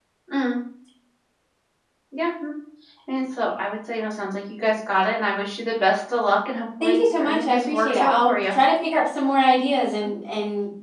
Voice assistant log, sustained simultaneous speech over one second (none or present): present